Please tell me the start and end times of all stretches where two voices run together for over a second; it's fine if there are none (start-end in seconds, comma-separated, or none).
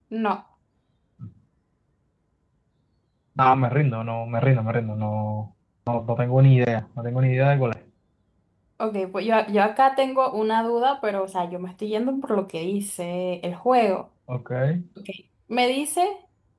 none